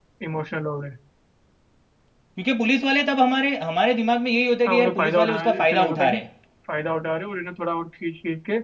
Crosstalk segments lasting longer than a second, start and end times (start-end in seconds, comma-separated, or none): 4.7-6.2